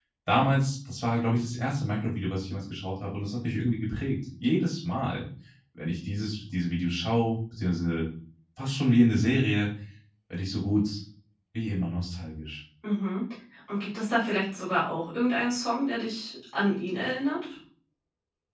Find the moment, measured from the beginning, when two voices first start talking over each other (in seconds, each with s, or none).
none